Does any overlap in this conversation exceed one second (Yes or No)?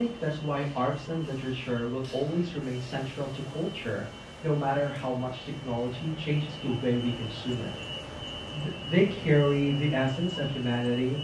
No